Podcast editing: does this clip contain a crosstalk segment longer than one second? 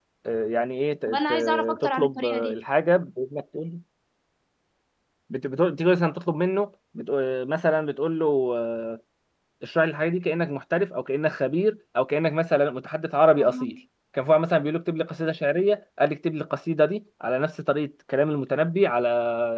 Yes, from 1.1 s

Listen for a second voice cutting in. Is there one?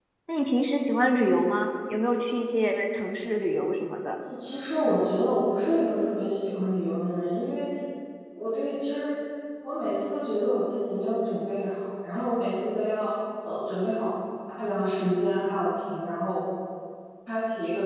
No

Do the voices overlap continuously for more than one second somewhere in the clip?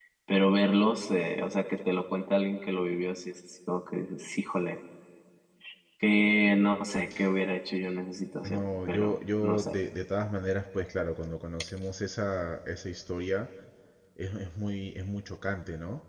Yes, from 8.4 s

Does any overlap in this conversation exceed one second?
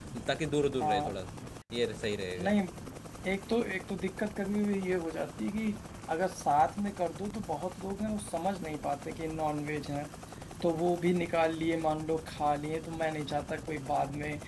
No

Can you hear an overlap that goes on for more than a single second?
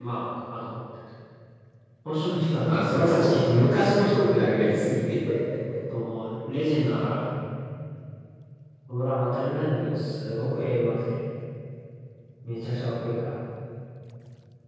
Yes, from 2.6 s

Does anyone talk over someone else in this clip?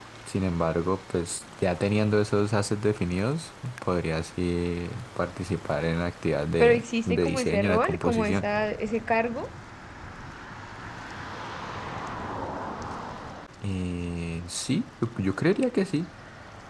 Yes, from 6.6 s

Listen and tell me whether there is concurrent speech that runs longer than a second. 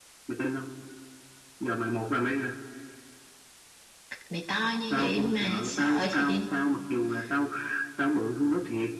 Yes, from 4.9 s

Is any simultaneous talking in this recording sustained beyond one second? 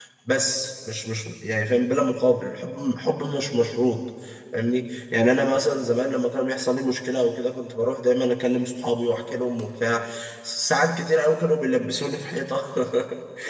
No

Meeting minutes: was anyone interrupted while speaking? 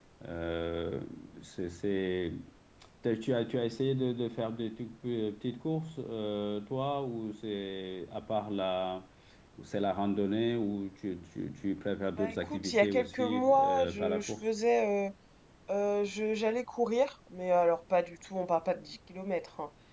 Yes, from 12.2 s

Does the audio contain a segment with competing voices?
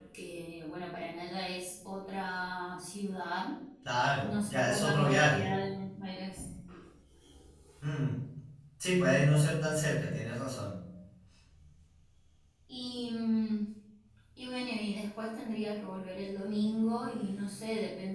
Yes, from 4.2 s

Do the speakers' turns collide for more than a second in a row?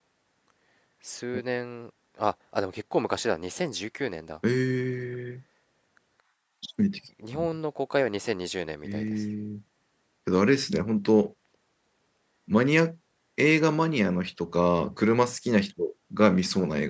No

